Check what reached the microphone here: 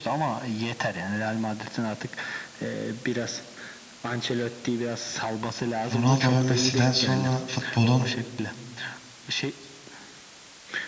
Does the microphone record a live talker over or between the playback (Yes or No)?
Yes